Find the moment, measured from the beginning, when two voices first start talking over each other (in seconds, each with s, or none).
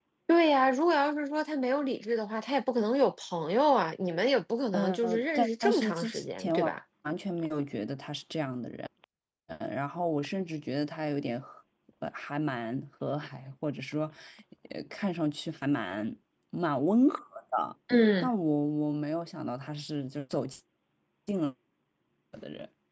4.7 s